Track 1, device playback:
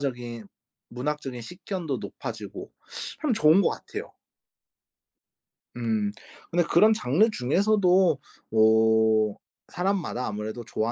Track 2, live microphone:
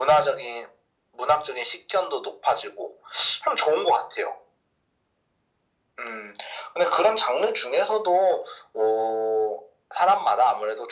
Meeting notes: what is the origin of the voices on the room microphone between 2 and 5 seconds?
echo only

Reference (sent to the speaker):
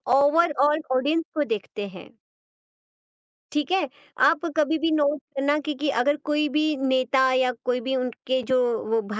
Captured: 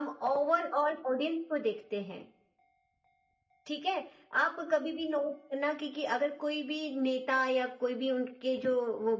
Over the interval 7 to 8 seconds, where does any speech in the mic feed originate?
echo only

